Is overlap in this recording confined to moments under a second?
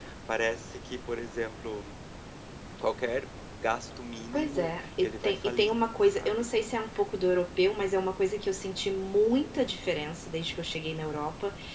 No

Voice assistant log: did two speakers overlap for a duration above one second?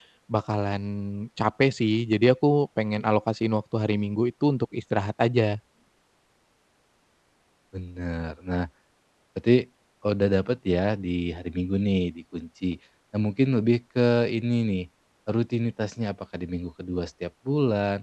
No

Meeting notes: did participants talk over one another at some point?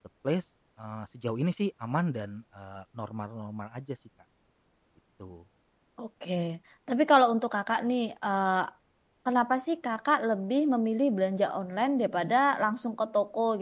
No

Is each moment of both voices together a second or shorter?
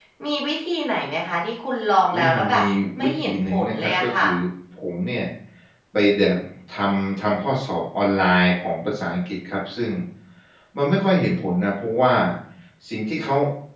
No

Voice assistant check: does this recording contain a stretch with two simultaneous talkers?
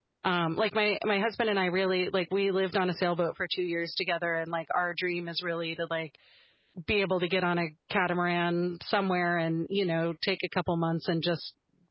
No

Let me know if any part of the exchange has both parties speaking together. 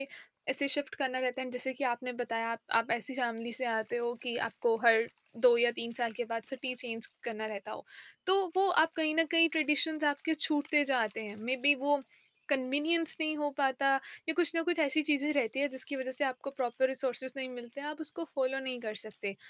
No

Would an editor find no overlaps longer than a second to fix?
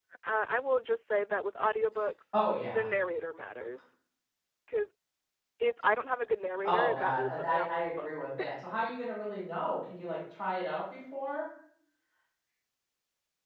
No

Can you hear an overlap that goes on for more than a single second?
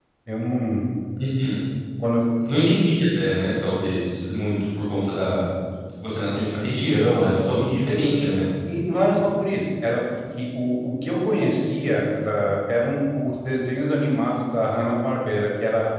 No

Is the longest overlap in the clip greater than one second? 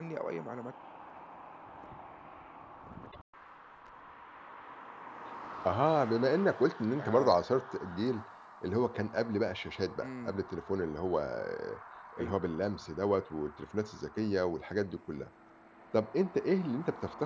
No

